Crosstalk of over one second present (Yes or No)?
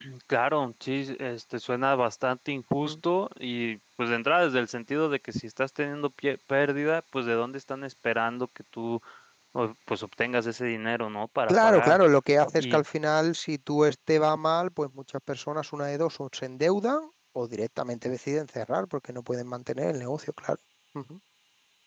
No